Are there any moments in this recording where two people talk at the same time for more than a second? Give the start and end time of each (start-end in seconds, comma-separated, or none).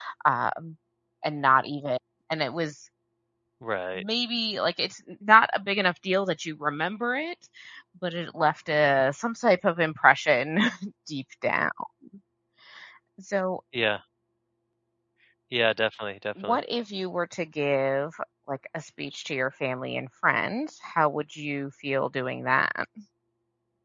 none